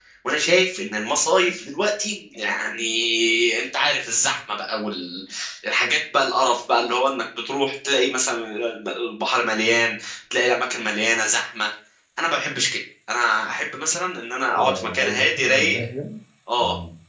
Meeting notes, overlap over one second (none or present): present